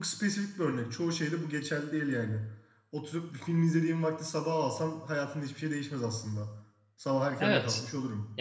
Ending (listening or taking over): taking over